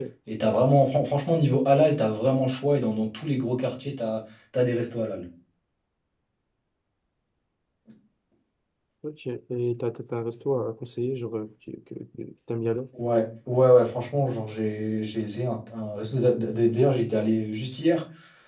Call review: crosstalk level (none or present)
none